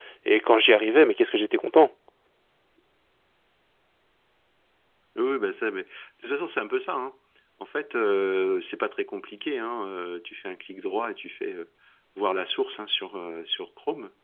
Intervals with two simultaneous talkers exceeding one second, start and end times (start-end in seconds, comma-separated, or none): none